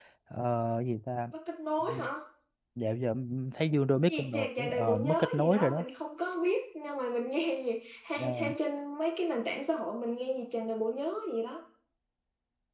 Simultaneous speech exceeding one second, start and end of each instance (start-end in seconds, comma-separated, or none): 4.0-5.8